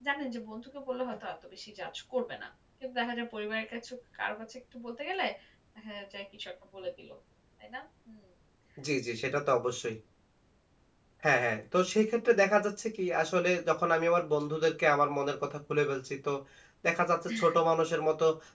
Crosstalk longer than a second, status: none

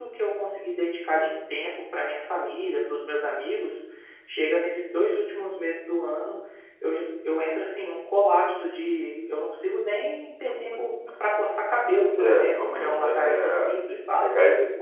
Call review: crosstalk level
present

